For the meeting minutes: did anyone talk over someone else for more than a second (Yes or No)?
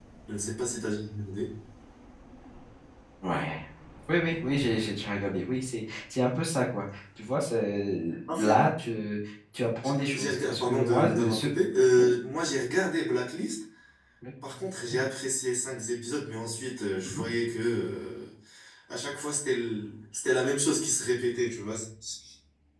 Yes